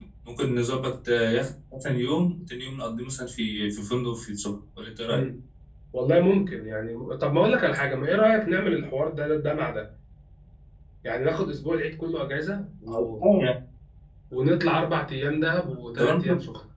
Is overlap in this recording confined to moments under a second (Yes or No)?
Yes